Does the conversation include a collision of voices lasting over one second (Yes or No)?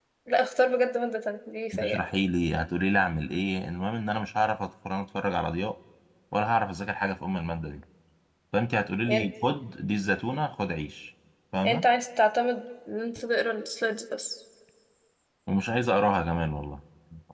No